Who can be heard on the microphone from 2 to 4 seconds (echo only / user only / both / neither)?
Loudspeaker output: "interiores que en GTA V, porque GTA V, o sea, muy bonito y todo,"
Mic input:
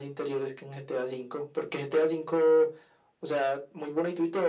echo only